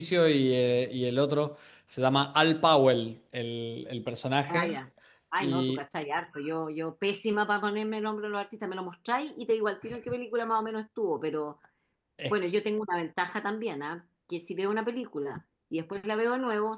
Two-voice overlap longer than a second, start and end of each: none

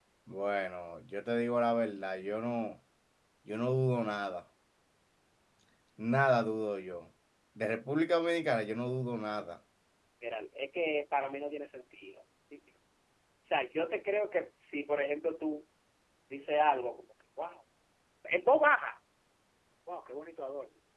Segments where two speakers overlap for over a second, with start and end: none

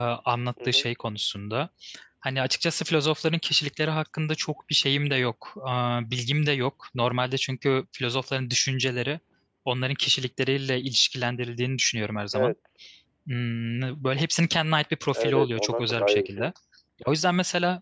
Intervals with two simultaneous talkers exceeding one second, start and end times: 15.1-16.5

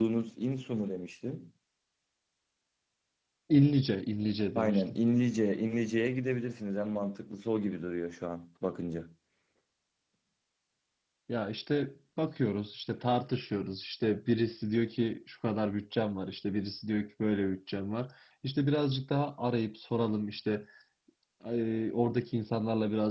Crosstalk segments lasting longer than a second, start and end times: none

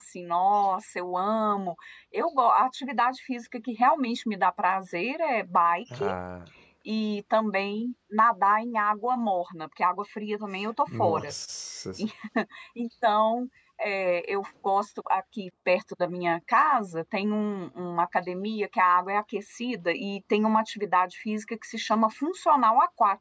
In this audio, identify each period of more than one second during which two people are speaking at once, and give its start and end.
none

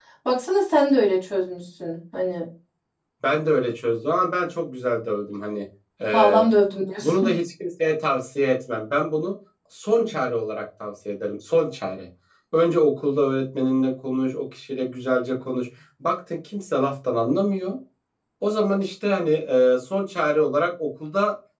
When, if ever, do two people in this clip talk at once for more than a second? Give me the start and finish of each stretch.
none

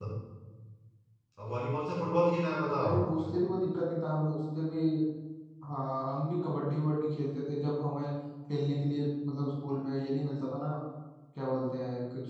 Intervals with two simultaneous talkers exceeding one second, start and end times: none

